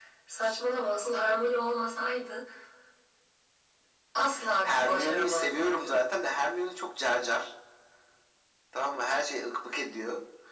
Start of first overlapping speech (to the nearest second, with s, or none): 5 s